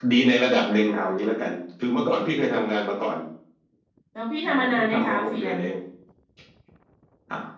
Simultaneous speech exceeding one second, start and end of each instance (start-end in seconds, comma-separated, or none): 4.5-5.7